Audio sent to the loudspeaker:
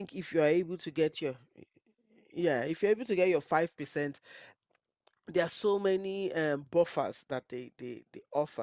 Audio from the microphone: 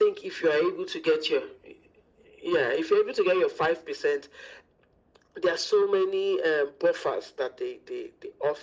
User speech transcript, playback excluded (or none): none